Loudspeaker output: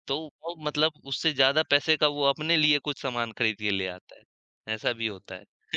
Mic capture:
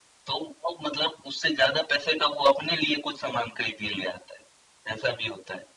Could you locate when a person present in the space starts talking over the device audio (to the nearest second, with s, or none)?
none